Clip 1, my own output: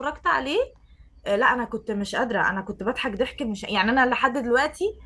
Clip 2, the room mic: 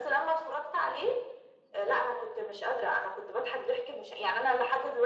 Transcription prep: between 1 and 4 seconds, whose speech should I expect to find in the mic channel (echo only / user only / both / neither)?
echo only